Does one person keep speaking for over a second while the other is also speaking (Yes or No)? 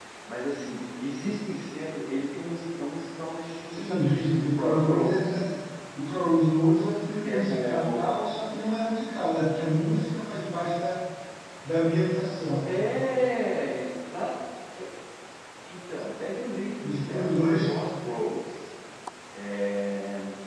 Yes